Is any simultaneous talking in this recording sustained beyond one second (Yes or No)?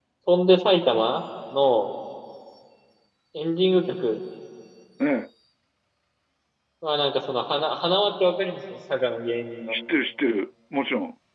No